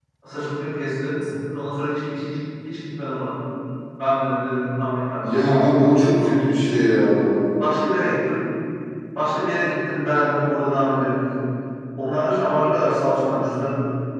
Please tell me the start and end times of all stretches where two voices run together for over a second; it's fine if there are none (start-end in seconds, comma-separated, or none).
5.2-6.5